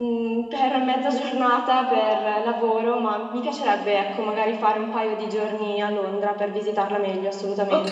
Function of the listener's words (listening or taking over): taking over